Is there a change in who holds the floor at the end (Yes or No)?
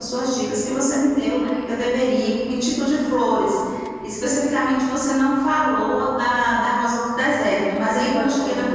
No